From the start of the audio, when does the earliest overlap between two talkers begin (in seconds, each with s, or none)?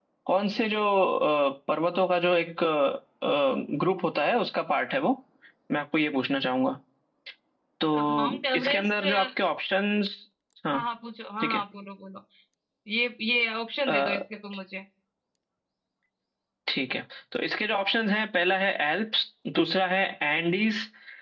7.9 s